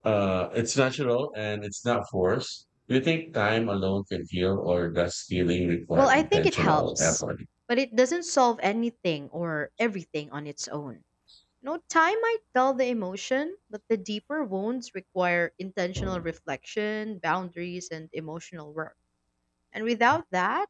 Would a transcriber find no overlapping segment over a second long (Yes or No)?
No